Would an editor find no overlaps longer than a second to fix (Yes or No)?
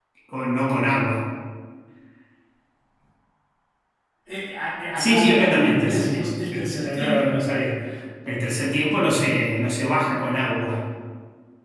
No